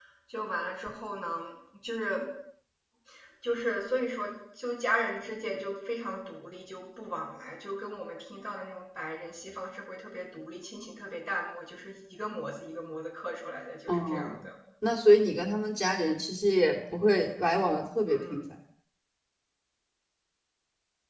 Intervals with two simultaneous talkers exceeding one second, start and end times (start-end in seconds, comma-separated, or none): none